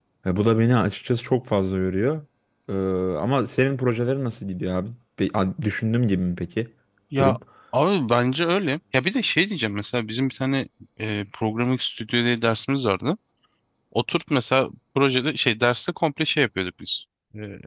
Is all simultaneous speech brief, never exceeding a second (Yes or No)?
Yes